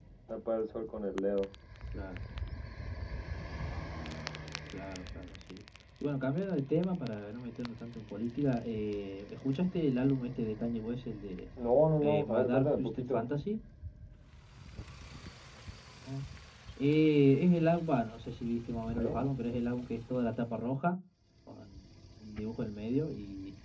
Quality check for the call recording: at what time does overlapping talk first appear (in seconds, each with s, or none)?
12.0 s